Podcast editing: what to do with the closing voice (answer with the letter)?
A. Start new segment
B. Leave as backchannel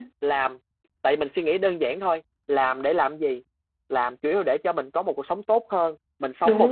B